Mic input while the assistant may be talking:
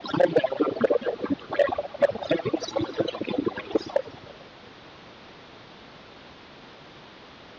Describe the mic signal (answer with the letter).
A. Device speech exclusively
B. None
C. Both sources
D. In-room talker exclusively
A